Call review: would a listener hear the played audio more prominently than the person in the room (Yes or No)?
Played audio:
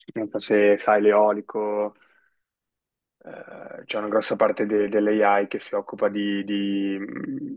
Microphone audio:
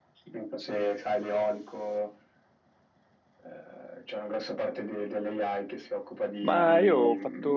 No